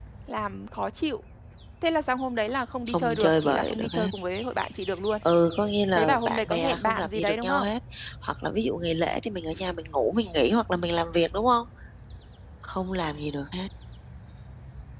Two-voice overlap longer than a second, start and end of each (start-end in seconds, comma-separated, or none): 2.9-4.1, 5.9-7.7